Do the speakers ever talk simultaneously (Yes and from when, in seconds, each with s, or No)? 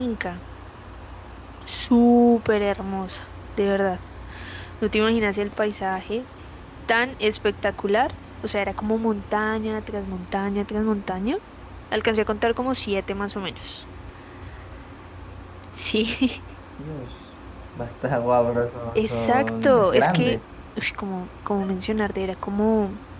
Yes, from 19.0 s